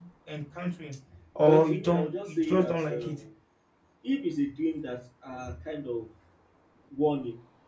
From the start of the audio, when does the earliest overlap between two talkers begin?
1.4 s

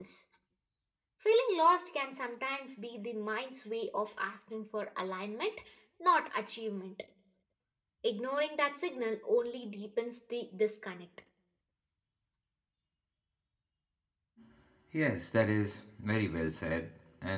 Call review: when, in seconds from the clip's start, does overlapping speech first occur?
none

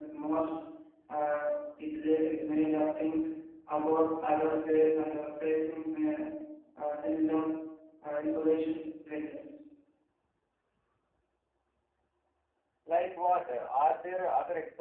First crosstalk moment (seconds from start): none

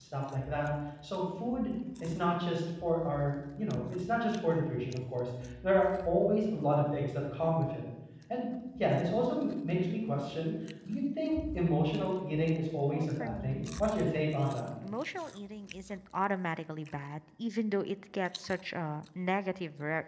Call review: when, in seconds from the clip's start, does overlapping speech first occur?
12.9 s

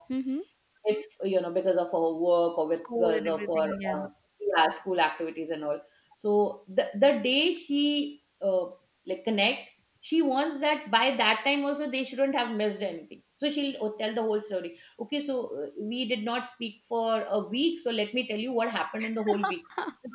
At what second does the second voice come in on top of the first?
2.7 s

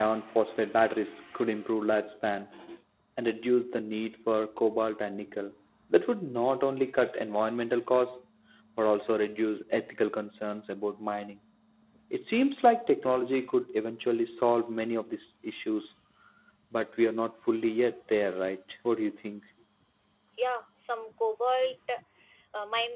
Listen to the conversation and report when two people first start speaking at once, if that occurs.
none

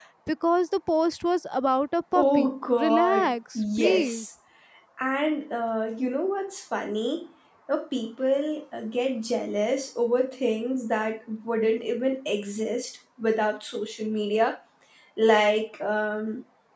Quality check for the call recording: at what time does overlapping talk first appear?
2.1 s

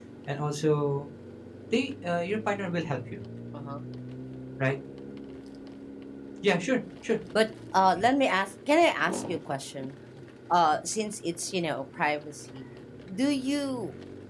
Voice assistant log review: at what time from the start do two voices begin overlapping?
none

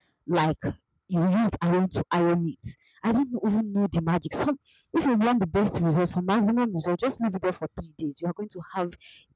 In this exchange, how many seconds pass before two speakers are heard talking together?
none

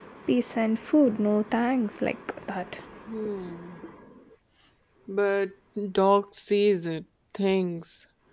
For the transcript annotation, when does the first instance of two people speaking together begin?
none

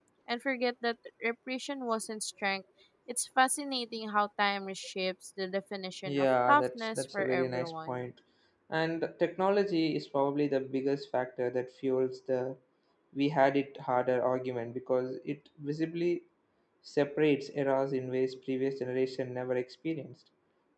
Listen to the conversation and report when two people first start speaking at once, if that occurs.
6.0 s

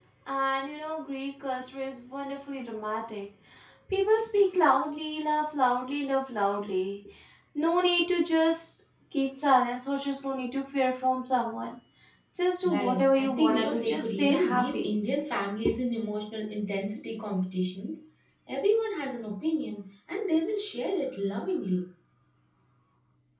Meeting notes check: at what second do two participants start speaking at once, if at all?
12.6 s

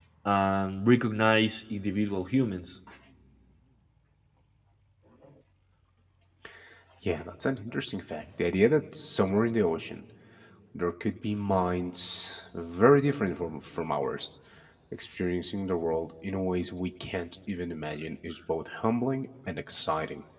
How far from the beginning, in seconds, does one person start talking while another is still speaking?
none

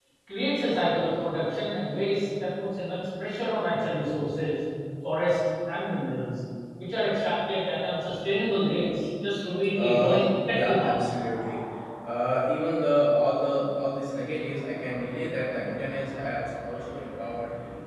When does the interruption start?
9.7 s

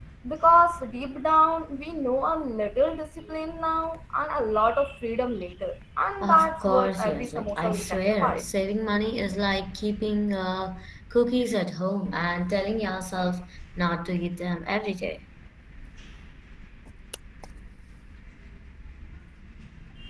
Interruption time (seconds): 6.2 s

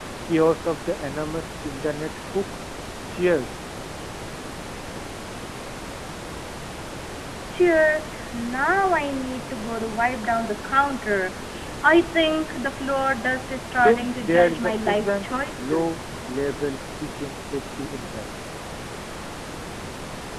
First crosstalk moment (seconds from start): 13.8 s

